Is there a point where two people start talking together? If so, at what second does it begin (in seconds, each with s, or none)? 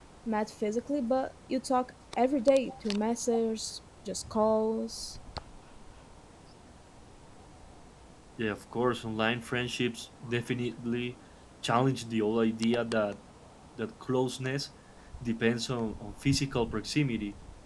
none